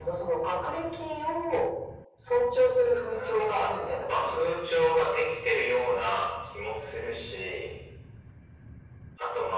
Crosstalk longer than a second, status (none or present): present